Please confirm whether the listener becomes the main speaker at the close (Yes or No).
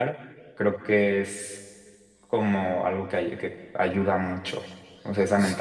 Yes